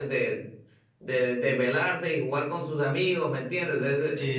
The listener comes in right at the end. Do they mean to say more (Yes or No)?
Yes